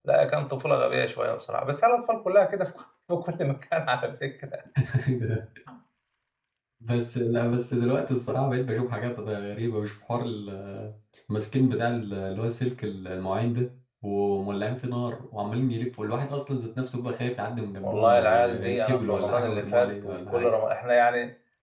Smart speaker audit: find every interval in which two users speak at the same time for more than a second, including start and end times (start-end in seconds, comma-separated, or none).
17.8-20.5